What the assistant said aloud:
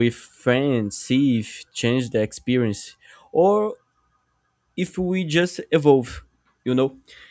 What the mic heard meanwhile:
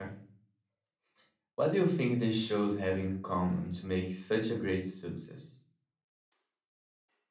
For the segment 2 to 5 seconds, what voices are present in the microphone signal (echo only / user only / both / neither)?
user only